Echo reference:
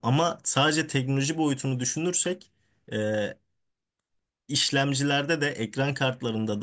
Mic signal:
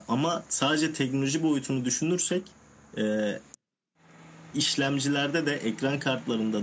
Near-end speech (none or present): none